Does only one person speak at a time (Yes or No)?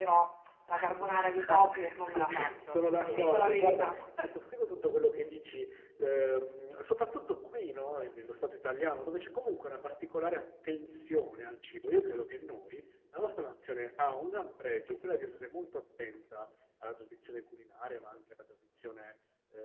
No